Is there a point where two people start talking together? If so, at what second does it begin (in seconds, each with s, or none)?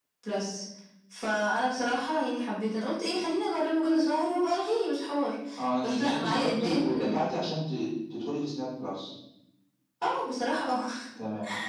5.8 s